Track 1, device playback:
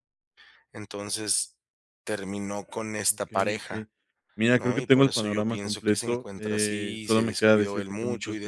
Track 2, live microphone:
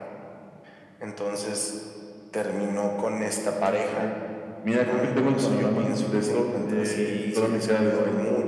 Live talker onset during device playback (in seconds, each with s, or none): none